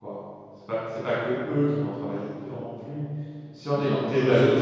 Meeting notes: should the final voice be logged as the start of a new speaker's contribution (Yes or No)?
Yes